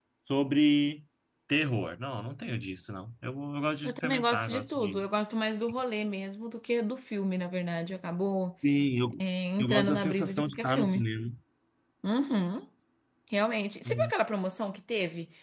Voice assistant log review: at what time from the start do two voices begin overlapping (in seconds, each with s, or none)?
3.8 s